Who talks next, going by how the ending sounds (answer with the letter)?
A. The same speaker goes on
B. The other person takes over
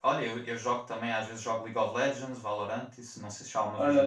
B